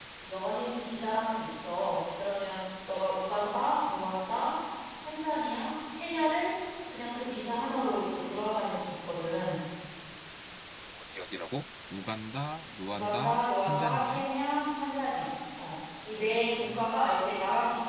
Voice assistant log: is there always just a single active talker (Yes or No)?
No